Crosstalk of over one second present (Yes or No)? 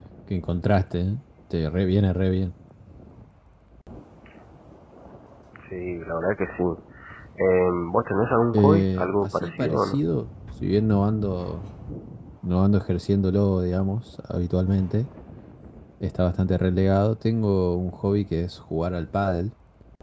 Yes